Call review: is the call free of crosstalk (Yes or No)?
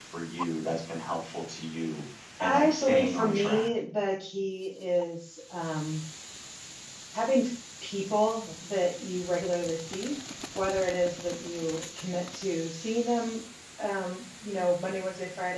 No